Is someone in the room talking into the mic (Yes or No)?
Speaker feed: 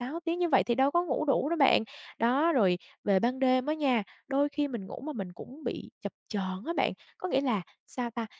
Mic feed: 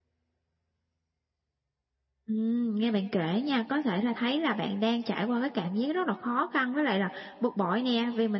Yes